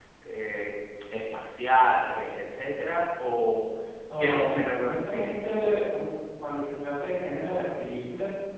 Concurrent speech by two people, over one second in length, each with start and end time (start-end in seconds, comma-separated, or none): 4.2-5.8